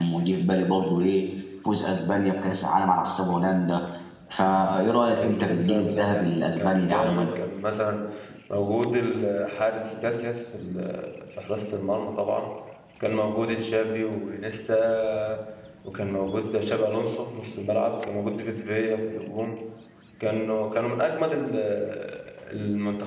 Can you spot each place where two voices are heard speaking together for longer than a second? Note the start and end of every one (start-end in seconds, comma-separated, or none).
5.1-7.3